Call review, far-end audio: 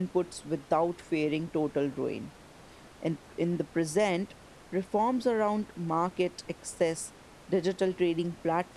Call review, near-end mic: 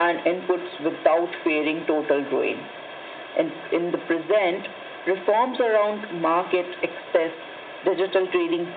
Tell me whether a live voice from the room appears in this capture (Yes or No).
No